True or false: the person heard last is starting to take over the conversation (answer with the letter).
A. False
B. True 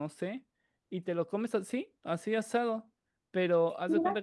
A